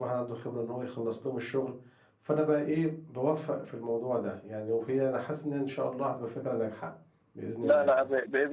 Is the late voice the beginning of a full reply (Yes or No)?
Yes